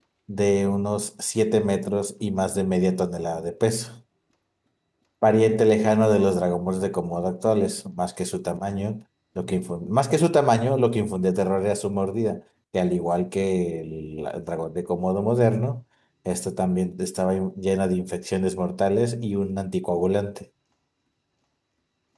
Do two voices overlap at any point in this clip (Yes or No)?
No